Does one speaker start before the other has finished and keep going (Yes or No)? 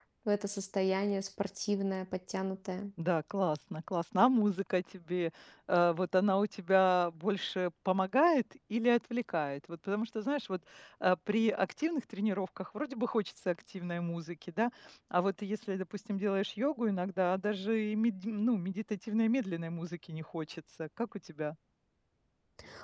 No